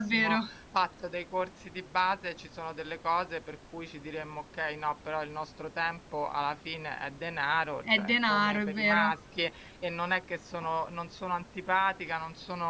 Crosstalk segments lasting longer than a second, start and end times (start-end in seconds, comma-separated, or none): 7.9-9.1